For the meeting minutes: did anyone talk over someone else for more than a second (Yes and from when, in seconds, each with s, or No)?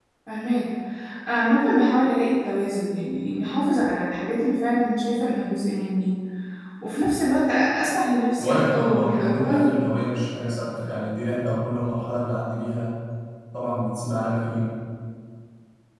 Yes, from 8.4 s